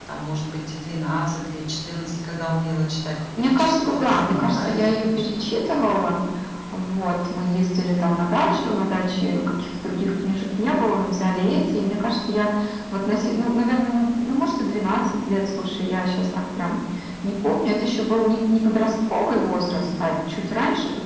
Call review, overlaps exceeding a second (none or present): present